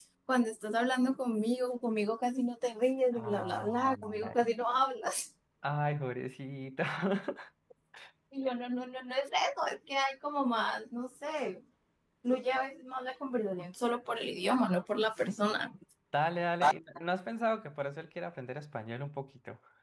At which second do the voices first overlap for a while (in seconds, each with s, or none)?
3.1 s